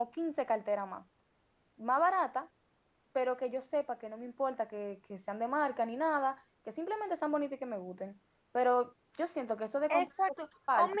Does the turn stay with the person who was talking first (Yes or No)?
No